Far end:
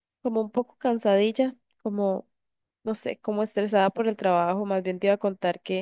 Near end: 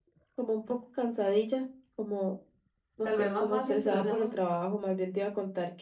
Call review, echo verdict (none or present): present